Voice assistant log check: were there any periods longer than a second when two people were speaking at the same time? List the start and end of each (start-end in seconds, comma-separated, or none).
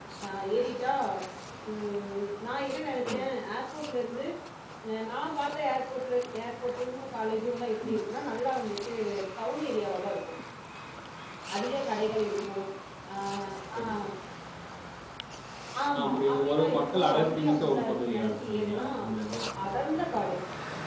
16.0-18.9